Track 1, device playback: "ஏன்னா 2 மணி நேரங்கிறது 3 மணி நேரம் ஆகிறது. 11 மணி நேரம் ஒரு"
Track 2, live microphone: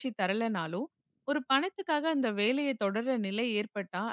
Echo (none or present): none